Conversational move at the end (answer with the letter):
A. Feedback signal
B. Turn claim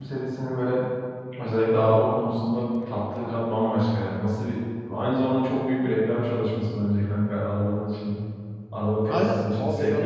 B